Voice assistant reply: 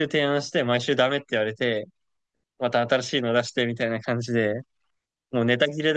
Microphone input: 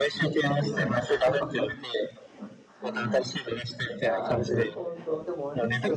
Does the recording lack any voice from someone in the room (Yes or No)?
No